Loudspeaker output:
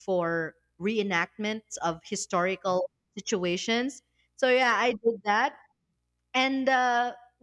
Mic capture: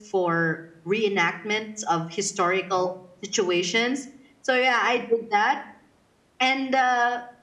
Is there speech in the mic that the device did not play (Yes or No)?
No